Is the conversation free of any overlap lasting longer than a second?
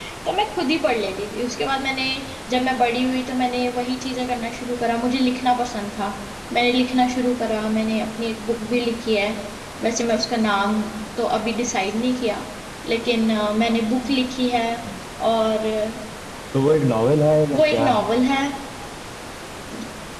Yes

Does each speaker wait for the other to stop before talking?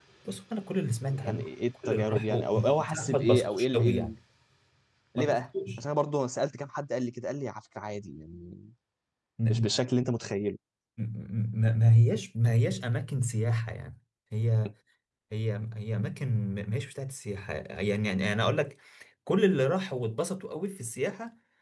No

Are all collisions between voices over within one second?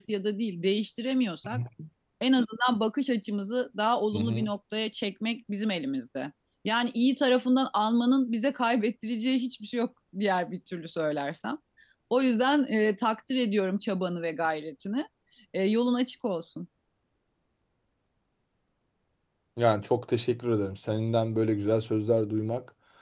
Yes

